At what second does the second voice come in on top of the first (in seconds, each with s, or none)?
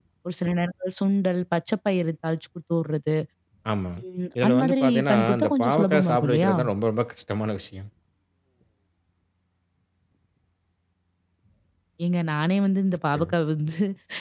4.4 s